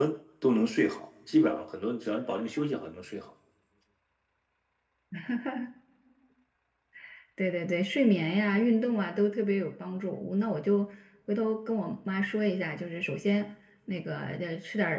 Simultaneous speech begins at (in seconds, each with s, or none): none